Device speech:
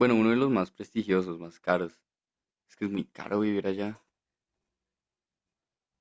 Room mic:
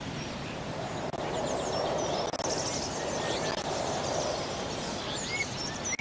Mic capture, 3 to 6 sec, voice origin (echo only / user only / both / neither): neither